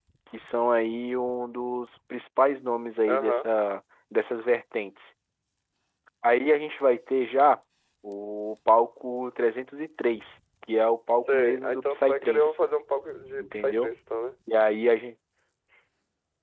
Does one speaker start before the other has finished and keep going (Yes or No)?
Yes